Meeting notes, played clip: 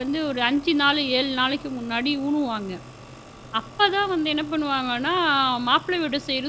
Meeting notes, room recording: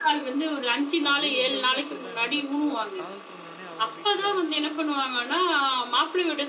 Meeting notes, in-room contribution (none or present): present